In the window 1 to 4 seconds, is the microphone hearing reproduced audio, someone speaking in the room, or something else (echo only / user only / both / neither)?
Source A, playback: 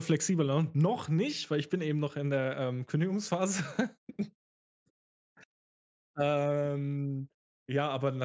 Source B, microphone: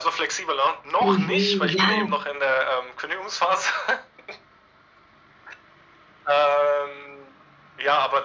both